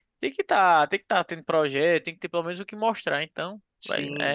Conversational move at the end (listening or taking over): taking over